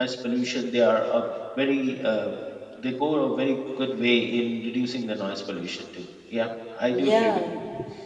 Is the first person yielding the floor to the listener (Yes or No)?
Yes